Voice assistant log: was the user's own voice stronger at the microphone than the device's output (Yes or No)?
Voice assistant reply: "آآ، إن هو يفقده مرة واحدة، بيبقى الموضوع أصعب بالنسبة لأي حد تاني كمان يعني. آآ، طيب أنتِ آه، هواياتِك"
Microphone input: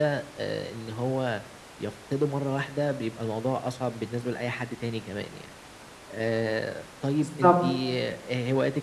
Yes